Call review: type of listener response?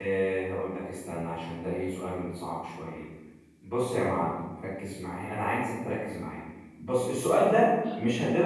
listening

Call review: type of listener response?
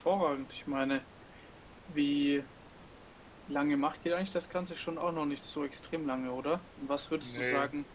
listening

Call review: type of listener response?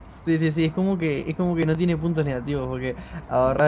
listening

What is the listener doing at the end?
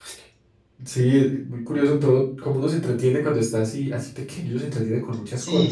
taking over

